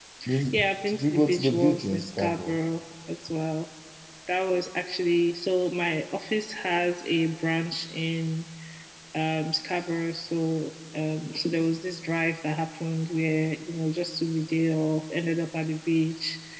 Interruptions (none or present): present